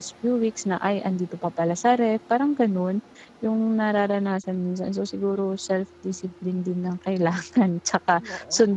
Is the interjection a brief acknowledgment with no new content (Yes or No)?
Yes